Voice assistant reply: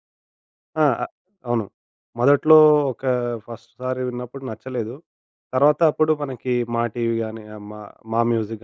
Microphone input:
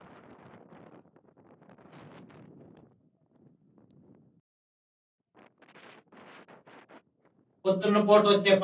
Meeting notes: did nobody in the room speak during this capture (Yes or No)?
No